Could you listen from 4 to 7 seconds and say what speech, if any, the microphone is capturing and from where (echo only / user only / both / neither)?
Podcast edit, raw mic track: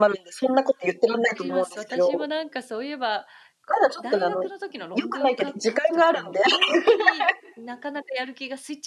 both